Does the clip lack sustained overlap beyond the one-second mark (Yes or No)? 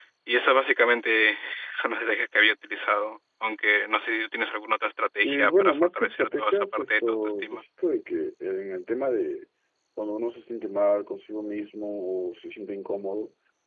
No